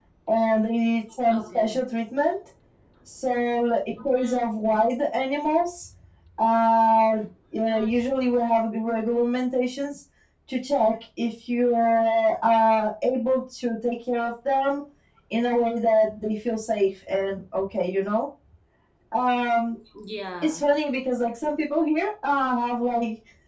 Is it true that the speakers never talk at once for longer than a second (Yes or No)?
Yes